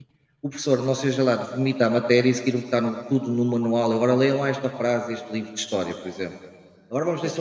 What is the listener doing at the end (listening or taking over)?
listening